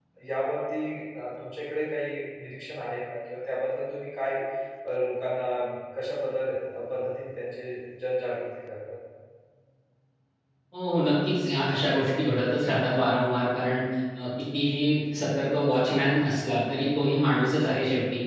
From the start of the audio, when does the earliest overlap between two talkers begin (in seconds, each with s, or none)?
none